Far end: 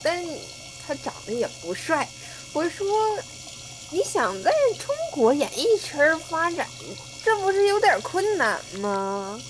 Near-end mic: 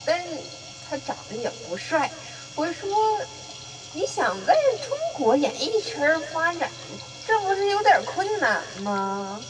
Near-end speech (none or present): none